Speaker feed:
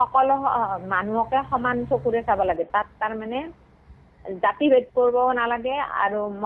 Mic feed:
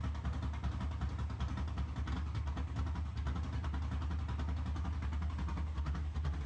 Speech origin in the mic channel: neither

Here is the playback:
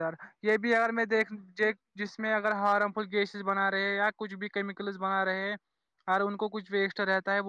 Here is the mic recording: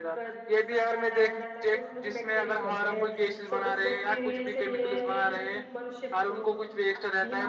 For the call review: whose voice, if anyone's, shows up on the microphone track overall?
both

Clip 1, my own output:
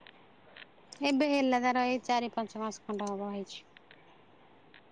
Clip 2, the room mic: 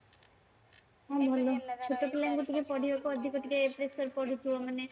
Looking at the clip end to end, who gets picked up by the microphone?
both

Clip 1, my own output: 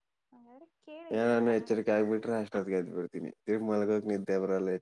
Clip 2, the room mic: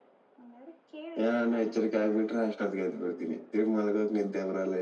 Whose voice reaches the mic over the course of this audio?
echo only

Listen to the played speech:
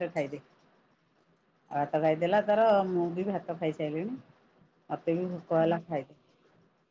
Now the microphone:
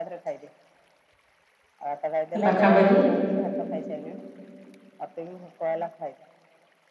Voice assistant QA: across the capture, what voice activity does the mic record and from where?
both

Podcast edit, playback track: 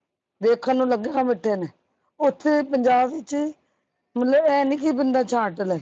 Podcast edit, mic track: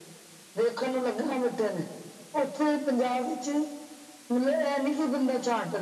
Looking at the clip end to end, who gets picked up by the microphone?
echo only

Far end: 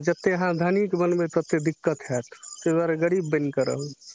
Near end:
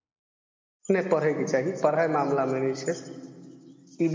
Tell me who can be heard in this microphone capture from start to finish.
user only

